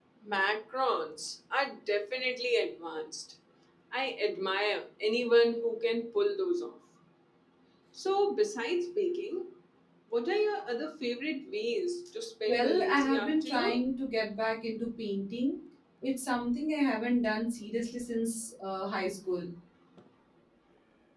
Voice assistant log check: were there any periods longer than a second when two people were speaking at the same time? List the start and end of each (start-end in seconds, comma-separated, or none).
12.5-13.8